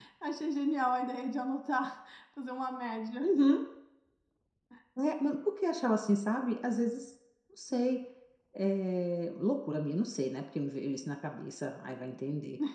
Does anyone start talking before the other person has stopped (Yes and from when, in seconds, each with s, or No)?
No